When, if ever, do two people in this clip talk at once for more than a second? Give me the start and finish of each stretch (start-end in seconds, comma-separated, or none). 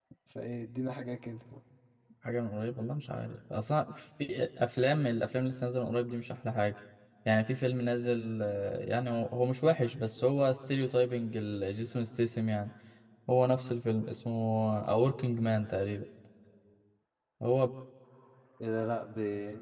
none